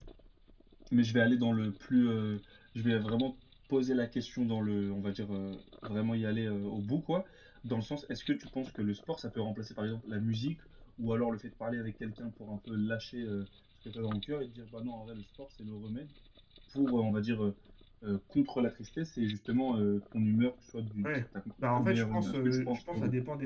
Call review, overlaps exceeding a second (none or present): present